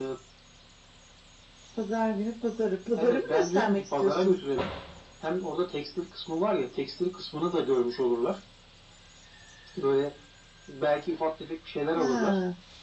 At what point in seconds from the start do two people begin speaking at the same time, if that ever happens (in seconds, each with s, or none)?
3.0 s